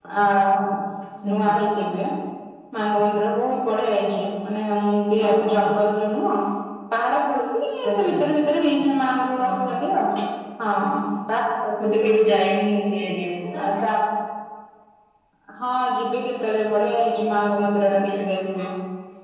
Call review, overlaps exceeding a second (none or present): none